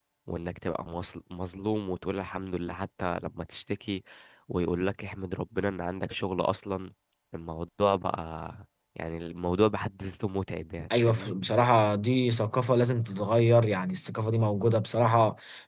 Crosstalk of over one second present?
No

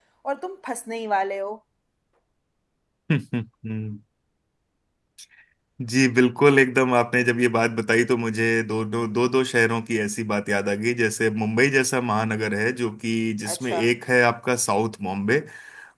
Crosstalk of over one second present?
No

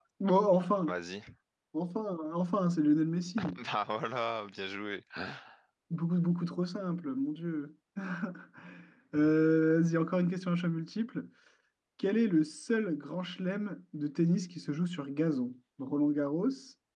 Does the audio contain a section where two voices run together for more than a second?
No

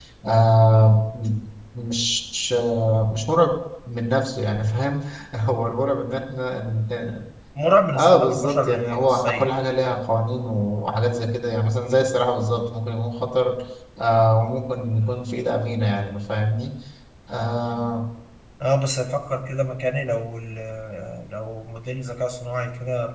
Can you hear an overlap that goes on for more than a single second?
Yes, from 7.9 s

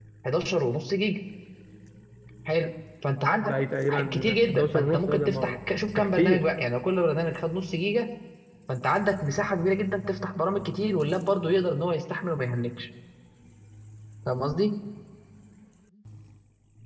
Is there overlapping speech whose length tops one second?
Yes, from 3.4 s

